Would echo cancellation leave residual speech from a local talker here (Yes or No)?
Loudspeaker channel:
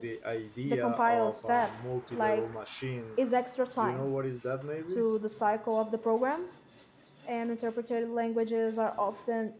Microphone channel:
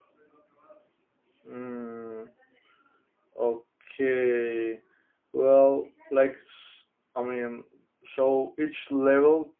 Yes